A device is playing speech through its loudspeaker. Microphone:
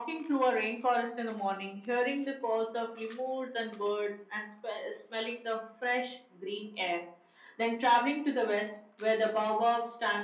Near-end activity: none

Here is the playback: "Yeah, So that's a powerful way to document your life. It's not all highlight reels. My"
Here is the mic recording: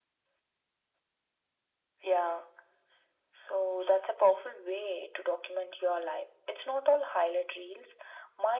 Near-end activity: none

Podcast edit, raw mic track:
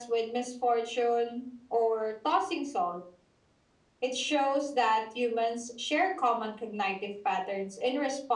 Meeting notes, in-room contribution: none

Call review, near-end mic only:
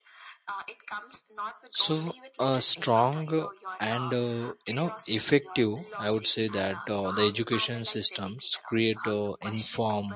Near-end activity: present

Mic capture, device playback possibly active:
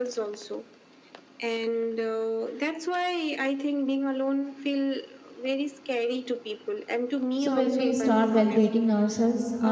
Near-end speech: present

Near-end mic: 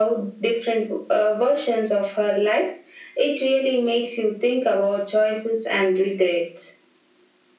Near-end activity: none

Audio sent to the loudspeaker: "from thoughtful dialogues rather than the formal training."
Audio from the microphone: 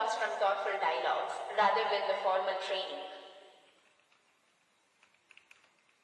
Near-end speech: none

